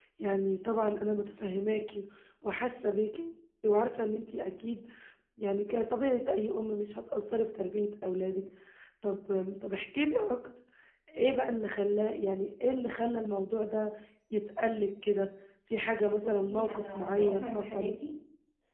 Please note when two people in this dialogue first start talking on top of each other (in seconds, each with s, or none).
16.2 s